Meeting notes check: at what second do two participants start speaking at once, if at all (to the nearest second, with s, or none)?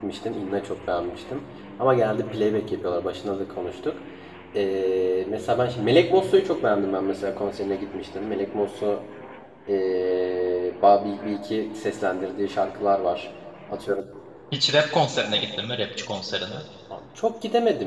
none